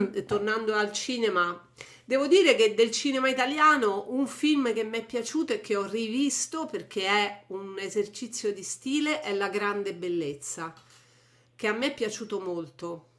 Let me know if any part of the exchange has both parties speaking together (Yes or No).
No